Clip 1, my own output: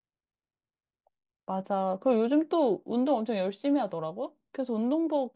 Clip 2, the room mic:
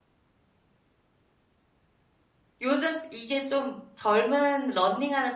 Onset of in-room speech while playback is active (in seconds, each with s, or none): 2.6 s